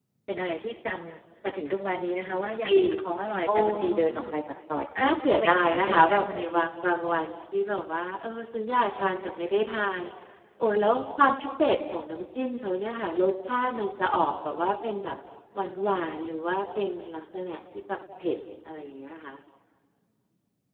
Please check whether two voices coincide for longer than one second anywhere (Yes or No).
Yes